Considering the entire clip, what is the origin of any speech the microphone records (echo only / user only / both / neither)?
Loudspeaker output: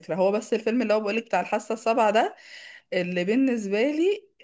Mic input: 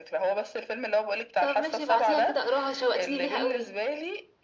both